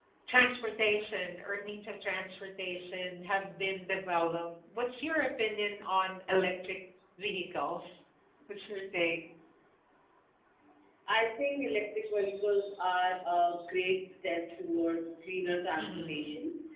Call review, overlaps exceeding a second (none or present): none